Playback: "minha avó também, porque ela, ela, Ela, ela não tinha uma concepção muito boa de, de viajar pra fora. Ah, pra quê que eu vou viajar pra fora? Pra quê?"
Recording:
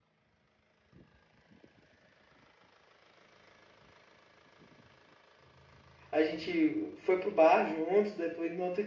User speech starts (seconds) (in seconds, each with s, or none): 6.1 s